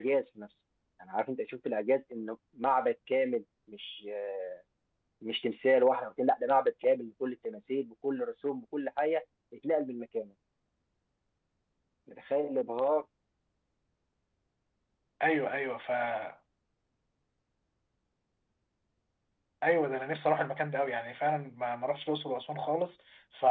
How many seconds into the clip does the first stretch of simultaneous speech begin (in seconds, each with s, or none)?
none